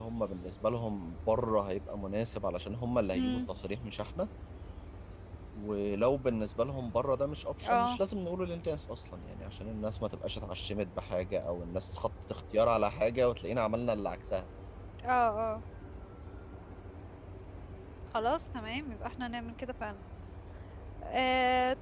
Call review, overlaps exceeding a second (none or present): none